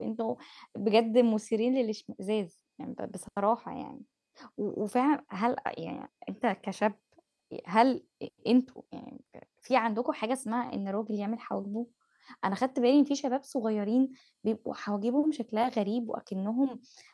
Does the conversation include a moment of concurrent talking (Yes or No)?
No